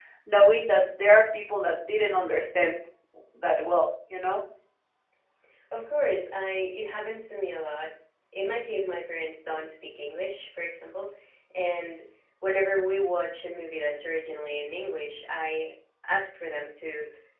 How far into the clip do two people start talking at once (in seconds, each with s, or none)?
none